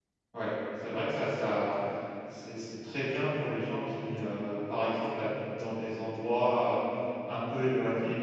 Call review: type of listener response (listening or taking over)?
listening